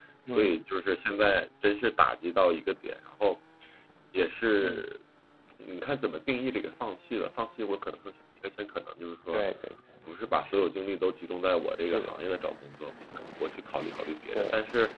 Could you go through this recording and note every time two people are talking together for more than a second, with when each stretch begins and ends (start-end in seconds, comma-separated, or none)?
none